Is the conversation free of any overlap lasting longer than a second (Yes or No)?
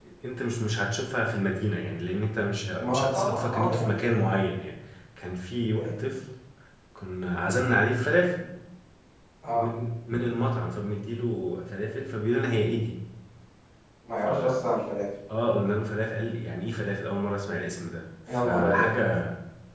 No